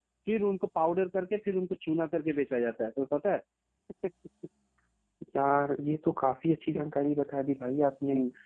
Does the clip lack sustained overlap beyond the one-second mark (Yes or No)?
Yes